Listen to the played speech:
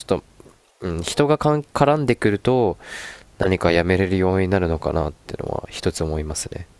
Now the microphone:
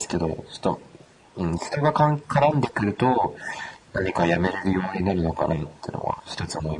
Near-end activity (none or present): none